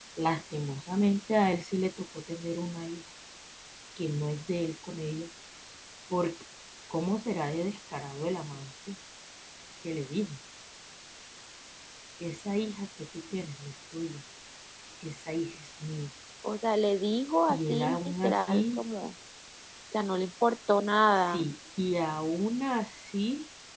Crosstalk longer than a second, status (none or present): present